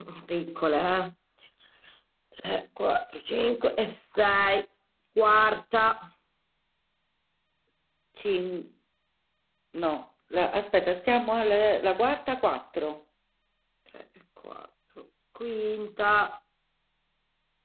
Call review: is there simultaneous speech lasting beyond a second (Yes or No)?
No